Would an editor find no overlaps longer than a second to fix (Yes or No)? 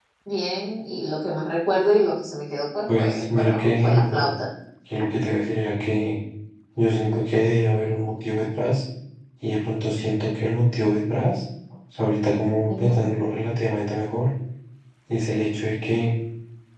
No